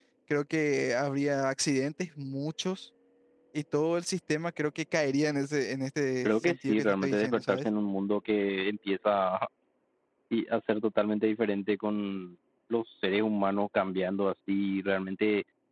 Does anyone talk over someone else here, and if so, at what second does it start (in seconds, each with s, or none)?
6.2 s